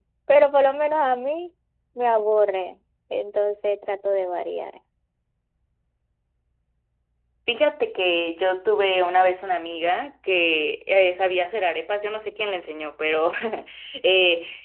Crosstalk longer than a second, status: none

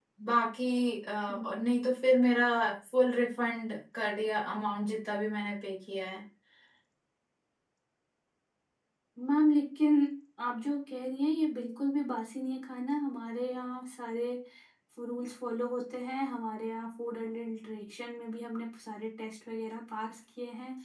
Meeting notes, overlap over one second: none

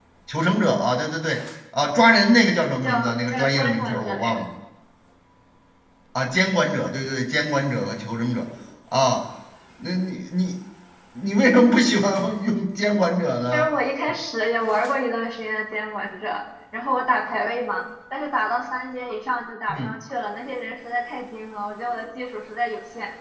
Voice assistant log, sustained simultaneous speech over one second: present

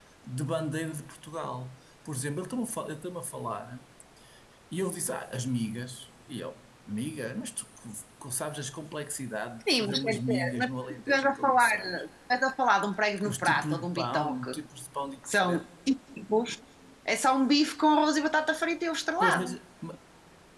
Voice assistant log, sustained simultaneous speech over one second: present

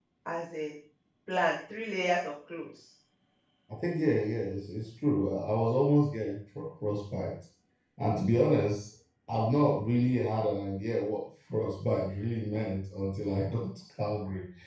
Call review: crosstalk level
none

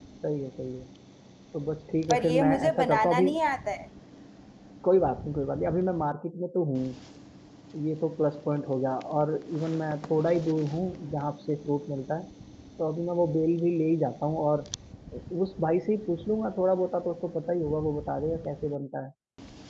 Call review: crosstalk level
present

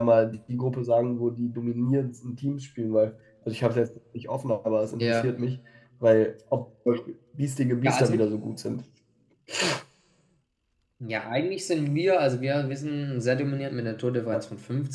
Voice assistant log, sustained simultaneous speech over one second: none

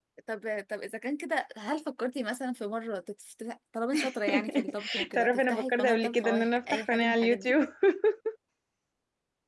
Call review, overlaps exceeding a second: present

